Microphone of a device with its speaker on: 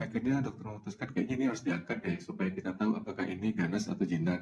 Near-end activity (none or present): none